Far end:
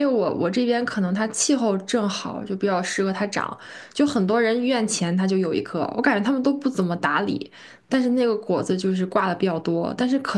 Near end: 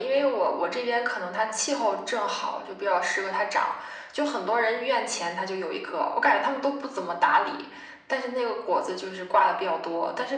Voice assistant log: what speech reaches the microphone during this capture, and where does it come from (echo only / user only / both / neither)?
echo only